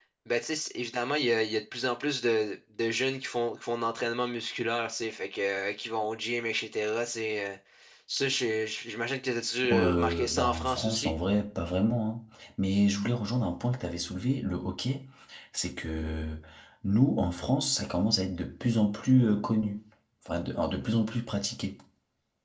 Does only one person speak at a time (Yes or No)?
No